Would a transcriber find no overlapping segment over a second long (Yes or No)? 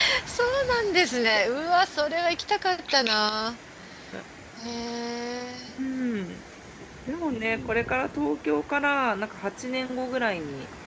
Yes